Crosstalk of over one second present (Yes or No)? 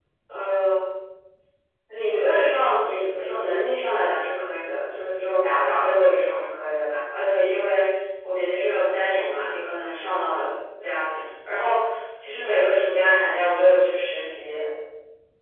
Yes